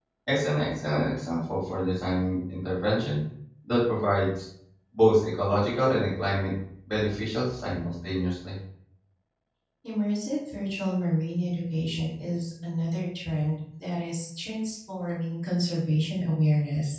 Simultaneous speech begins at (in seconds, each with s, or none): none